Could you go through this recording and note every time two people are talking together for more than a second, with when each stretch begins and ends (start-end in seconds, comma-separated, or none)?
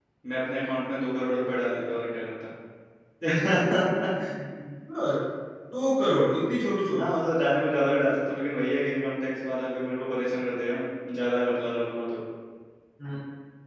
none